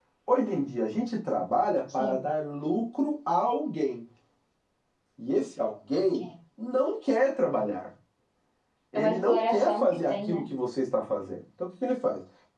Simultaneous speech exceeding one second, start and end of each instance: 8.9-10.4

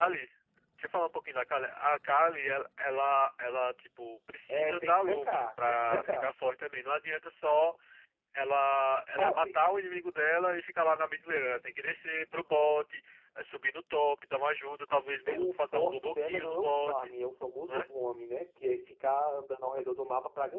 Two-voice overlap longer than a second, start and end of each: 4.5-6.3, 15.3-17.1

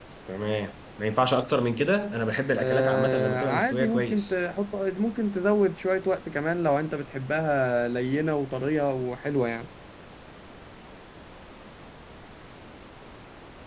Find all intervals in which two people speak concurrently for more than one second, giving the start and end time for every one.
2.6-4.3

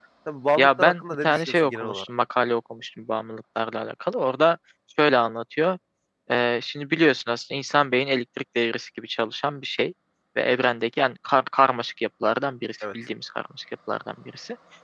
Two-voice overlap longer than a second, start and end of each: 0.6-2.0

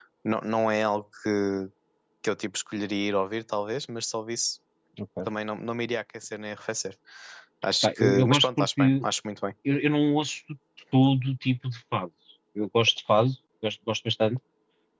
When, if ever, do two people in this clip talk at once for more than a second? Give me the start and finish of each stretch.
7.8-9.0

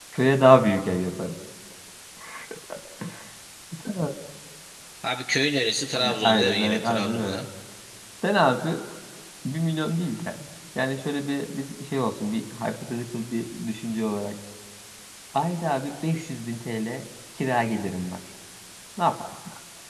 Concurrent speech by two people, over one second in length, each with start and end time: 5.9-7.4

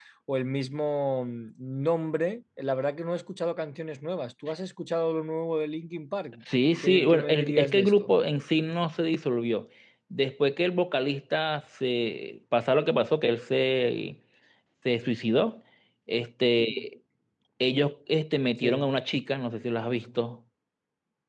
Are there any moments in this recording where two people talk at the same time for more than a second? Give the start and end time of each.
6.8-8.1

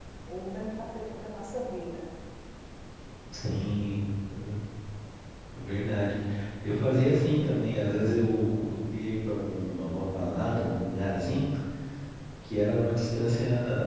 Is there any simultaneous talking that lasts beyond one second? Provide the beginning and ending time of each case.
none

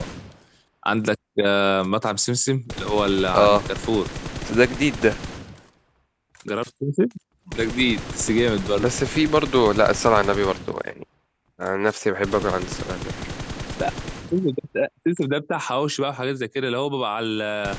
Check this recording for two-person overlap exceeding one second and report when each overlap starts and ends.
none

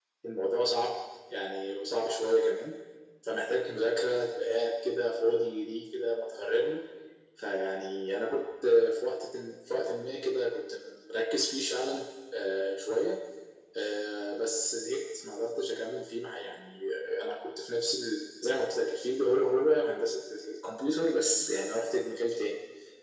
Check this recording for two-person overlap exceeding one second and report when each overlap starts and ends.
none

